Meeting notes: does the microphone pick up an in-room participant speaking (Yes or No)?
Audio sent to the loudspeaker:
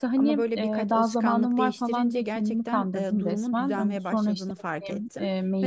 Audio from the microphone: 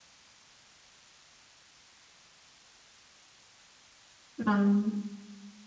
Yes